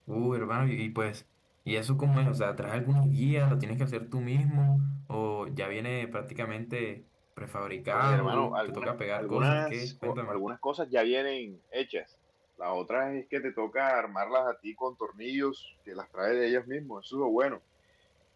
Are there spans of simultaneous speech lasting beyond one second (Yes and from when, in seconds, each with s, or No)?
Yes, from 7.9 s